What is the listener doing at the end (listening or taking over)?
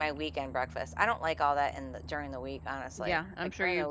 taking over